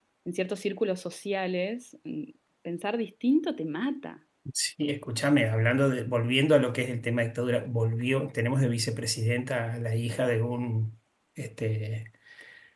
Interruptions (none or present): none